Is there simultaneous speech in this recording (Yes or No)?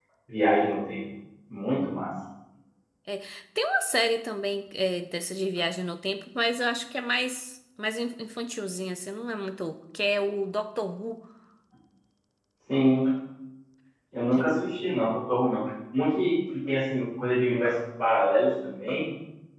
No